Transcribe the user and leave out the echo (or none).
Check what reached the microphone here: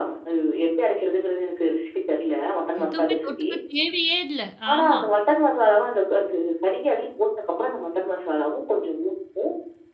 எதுவுமே தொட்டுக்க தேவையே இல்ல. ஆமா,